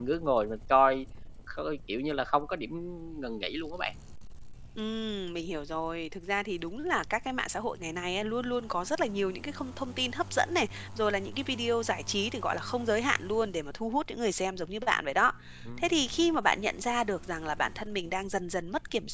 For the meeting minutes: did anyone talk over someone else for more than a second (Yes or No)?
No